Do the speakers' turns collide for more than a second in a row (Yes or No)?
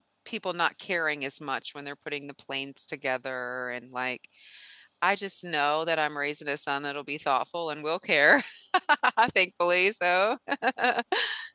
No